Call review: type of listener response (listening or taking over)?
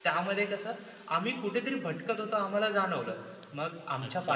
taking over